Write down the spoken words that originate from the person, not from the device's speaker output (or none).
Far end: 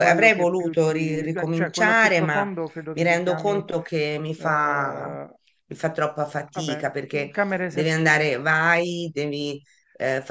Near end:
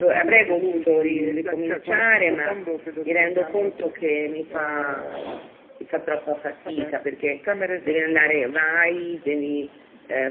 none